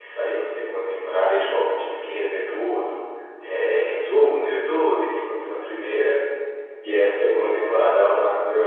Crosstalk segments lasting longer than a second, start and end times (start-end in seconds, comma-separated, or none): none